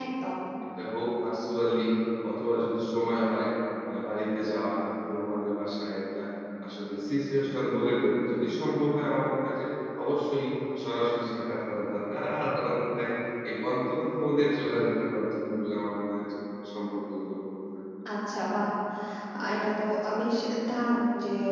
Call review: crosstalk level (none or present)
none